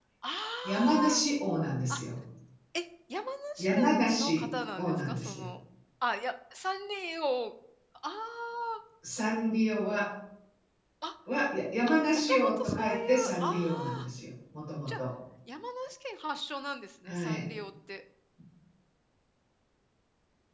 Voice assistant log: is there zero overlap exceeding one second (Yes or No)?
No